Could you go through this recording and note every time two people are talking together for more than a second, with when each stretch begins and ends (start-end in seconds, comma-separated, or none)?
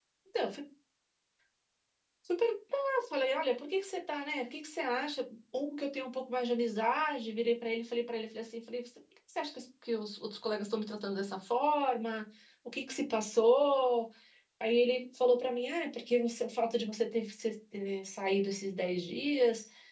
none